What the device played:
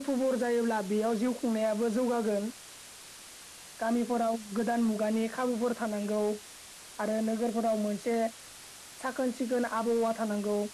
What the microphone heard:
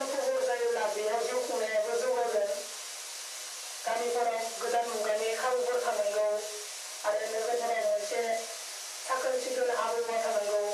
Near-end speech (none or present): none